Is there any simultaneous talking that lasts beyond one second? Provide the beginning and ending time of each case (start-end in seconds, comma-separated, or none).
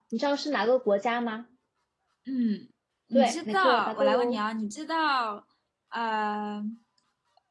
3.1-4.4